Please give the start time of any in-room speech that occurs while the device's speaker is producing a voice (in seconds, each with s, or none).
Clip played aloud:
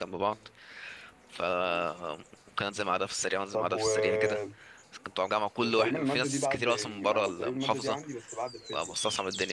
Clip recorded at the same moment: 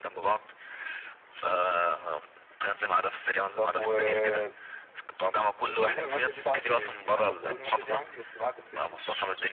none